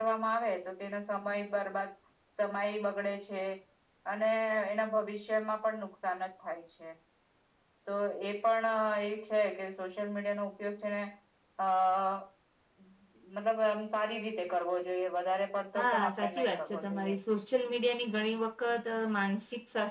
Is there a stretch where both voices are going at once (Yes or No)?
Yes